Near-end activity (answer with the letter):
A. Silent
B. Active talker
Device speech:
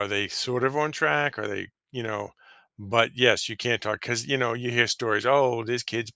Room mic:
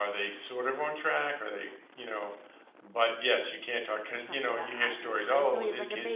B